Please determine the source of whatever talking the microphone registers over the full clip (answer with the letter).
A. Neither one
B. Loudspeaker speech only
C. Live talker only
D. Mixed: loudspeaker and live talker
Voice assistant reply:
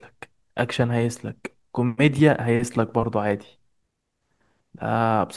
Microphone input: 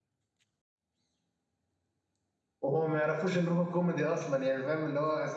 C